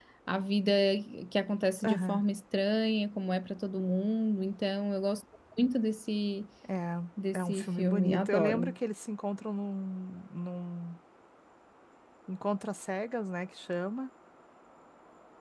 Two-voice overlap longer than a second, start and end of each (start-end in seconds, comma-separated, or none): 7.3-8.8